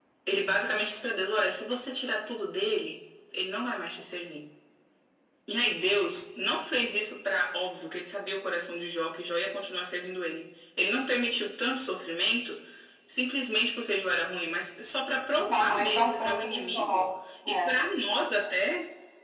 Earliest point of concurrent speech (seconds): 15.3 s

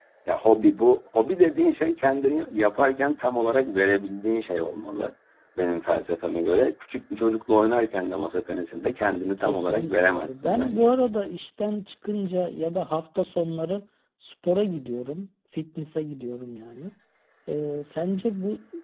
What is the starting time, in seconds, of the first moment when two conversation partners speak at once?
9.4 s

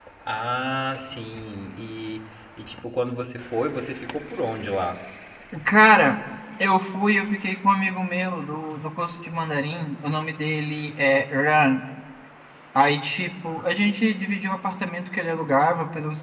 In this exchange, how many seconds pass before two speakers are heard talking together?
none

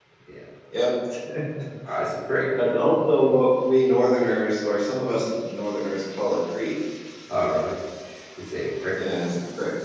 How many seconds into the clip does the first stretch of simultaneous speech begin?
none

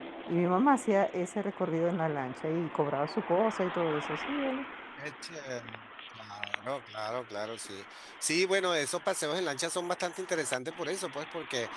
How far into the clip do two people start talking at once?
none

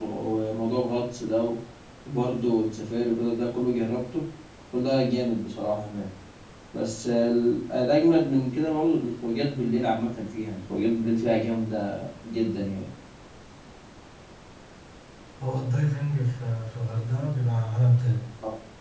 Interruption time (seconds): none

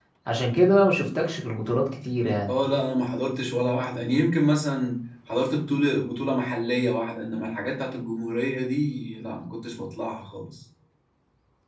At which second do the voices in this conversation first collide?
none

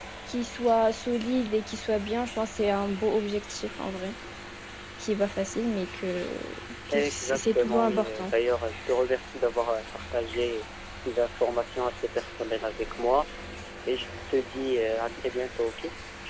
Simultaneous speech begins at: 6.9 s

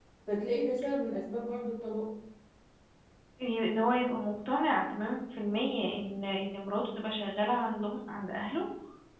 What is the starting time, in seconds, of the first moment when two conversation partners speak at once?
none

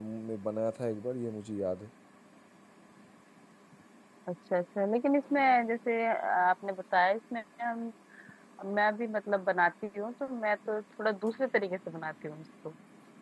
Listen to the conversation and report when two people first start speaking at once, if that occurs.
none

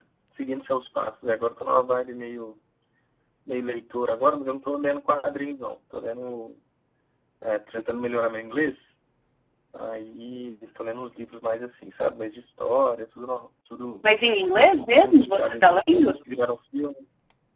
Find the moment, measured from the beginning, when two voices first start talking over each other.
14.9 s

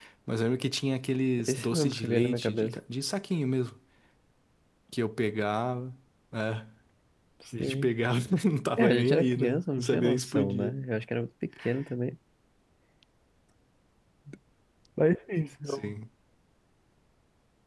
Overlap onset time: 1.5 s

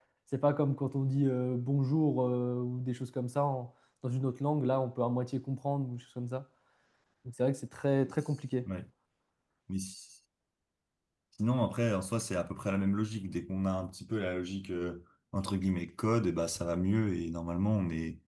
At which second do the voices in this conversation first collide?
none

